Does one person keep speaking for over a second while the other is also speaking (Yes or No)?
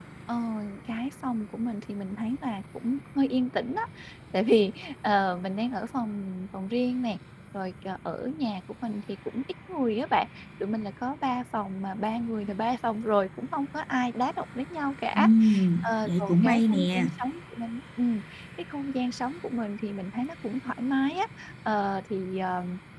Yes